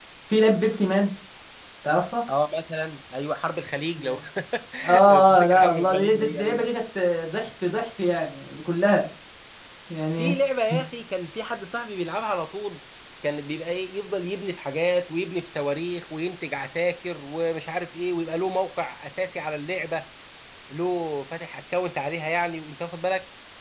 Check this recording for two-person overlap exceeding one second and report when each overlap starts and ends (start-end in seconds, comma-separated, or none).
5.1-6.7